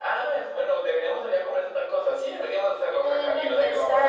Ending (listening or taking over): taking over